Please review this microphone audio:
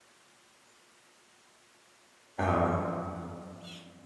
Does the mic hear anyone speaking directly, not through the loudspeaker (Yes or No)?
Yes